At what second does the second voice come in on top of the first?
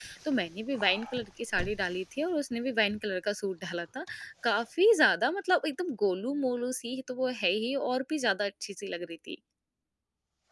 none

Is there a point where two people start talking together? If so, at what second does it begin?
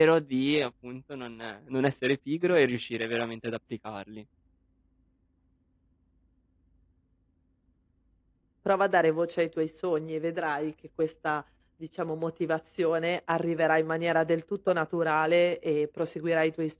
none

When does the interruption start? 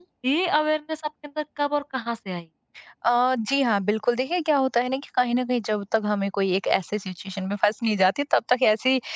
none

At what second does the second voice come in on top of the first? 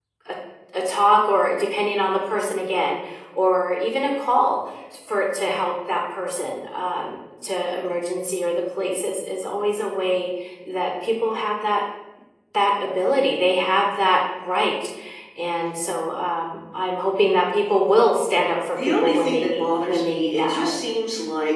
18.8 s

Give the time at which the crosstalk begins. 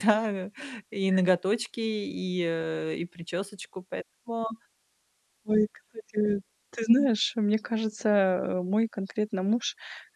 none

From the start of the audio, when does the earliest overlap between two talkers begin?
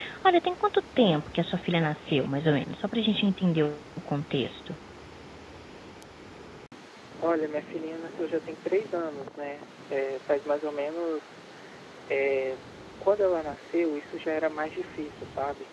none

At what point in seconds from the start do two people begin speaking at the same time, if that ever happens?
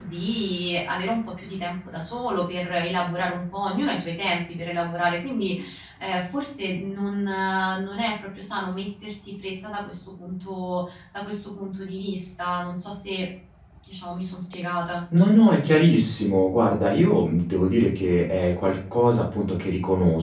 none

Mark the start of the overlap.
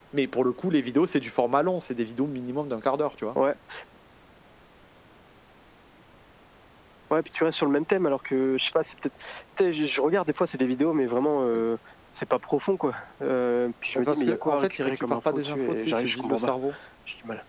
14.0 s

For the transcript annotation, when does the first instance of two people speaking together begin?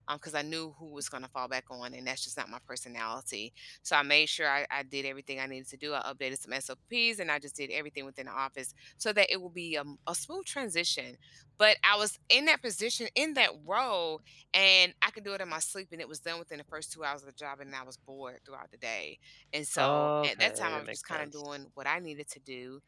19.7 s

